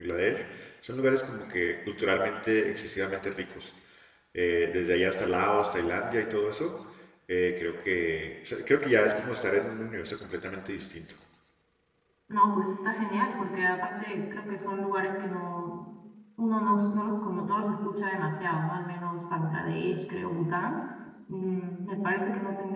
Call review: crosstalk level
none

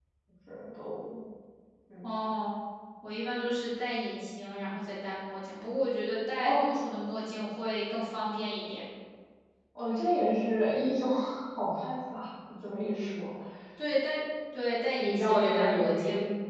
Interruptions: present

